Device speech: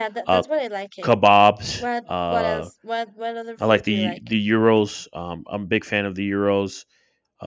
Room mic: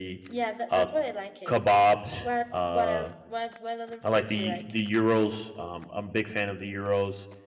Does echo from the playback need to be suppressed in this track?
Yes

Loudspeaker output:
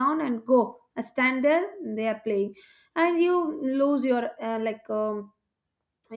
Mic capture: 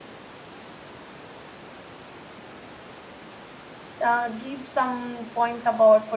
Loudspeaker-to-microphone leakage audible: No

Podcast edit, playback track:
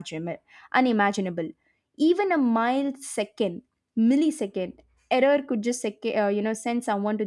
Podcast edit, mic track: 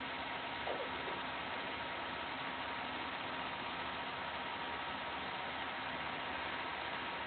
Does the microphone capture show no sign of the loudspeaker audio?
Yes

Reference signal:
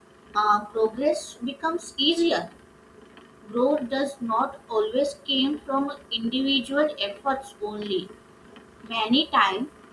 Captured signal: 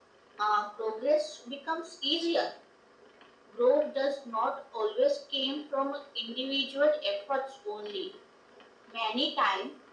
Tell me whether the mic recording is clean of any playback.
No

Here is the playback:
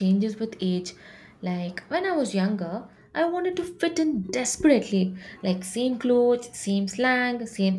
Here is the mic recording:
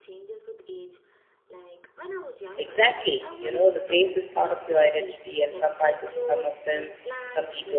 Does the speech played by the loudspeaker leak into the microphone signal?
Yes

